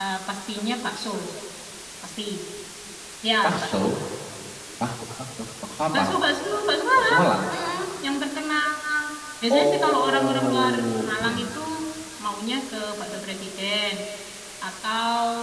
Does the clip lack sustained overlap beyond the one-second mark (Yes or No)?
No